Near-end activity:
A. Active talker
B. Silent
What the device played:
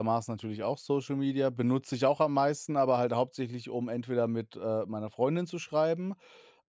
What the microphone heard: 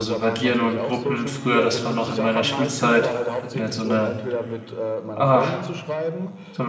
A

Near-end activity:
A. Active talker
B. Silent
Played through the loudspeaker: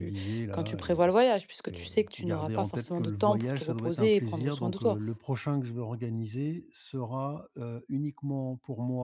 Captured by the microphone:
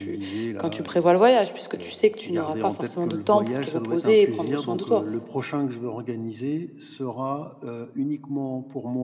B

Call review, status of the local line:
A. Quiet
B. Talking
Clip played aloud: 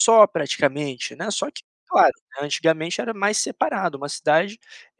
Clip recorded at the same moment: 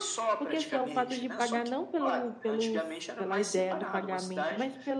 B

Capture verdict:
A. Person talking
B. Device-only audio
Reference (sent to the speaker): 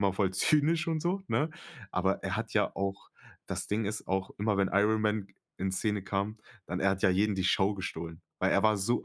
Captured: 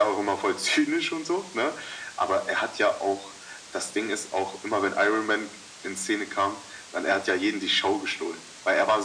B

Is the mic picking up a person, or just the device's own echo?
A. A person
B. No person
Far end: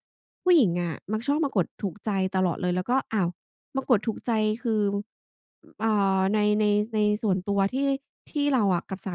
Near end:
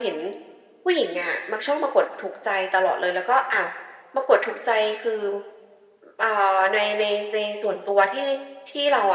B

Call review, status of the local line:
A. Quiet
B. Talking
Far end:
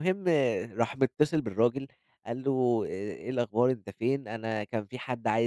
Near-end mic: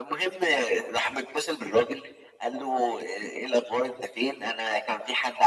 A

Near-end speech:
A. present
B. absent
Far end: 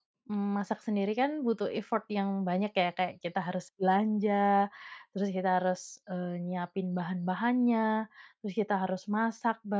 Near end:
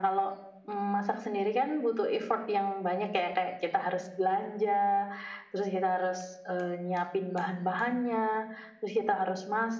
B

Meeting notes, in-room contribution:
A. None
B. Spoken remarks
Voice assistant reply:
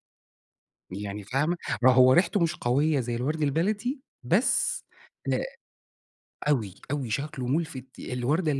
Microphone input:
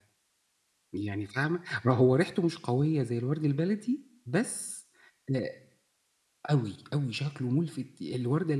A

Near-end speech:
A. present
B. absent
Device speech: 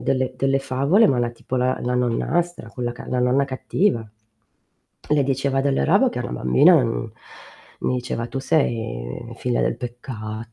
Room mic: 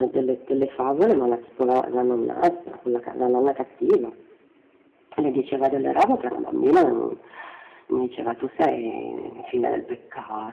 B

